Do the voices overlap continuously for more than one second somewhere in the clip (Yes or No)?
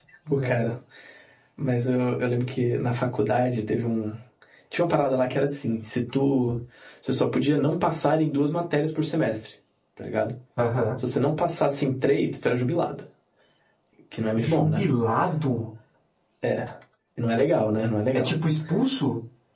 No